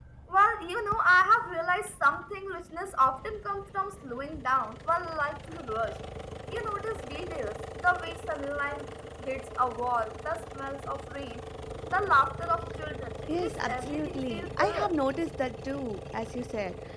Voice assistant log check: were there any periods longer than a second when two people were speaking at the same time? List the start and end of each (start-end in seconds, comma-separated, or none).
13.3-14.9